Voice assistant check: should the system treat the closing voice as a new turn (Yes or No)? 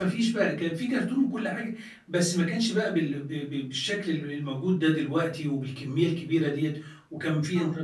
No